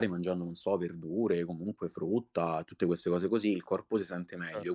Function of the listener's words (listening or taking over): listening